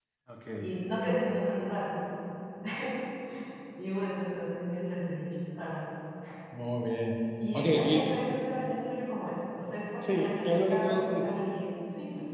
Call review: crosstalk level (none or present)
present